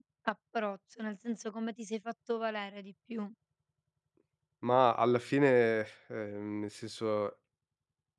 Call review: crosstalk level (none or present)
none